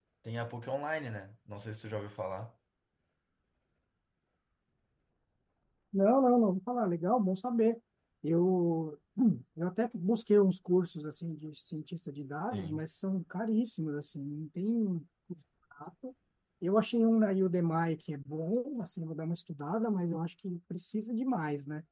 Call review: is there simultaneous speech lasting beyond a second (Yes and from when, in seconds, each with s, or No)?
No